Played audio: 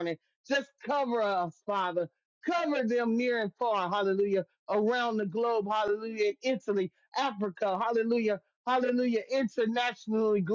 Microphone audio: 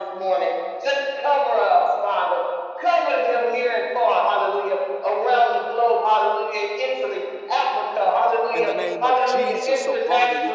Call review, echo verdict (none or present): present